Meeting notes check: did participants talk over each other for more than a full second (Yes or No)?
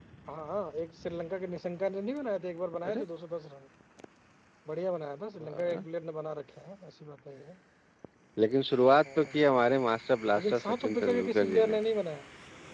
Yes